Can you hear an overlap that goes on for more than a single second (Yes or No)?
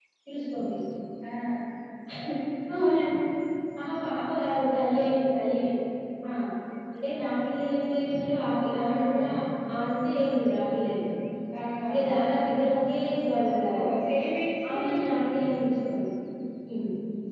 No